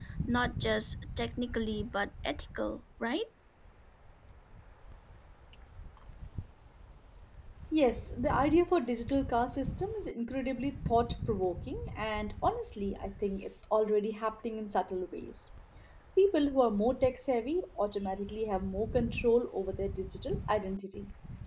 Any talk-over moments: No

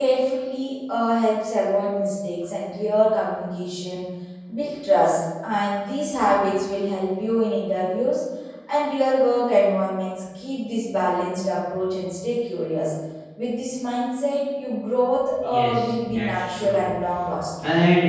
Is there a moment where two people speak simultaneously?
Yes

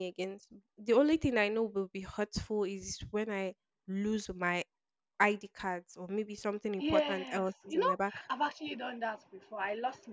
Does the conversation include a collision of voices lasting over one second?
Yes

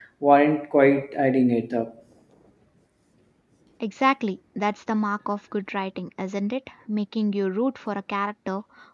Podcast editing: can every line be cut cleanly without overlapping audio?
Yes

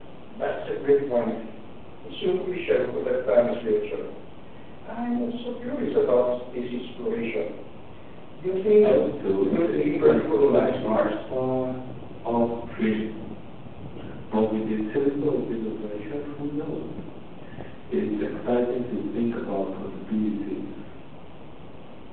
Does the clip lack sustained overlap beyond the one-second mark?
No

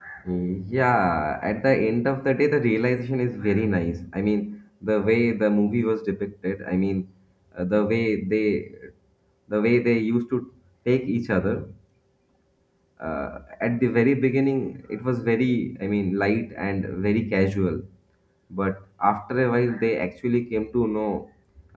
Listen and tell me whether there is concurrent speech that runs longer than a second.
No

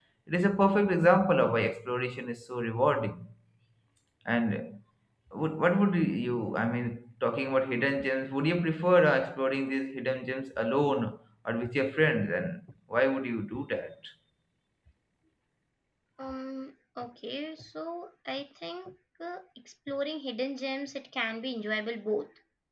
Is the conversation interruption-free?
Yes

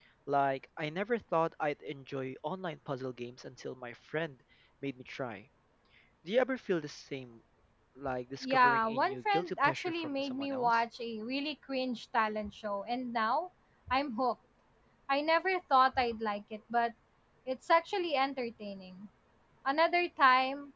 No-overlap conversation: No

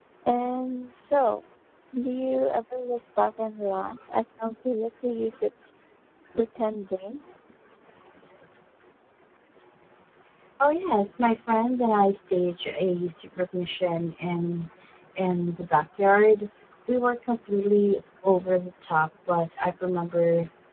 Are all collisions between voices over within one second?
Yes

